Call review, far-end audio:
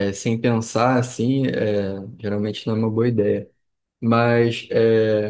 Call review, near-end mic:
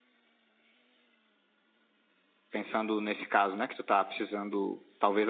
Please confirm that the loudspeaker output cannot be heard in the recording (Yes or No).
Yes